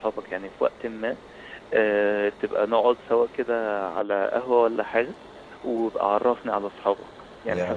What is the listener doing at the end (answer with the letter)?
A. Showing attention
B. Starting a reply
B